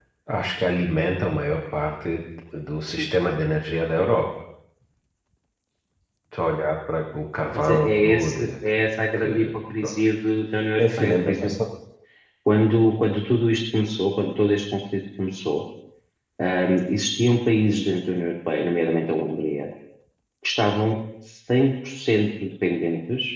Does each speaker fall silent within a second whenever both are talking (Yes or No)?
No